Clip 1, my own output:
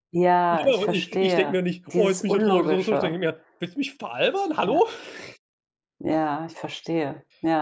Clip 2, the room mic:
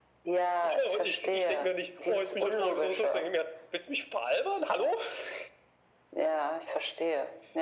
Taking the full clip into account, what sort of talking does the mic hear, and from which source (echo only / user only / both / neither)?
echo only